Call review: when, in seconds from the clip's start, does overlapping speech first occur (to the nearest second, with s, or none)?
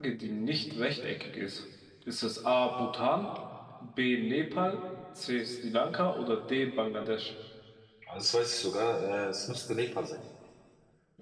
none